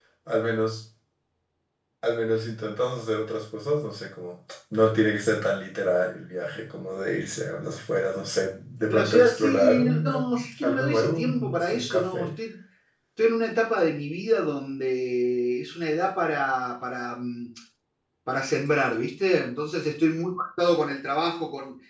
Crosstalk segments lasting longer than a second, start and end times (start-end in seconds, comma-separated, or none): 8.9-12.3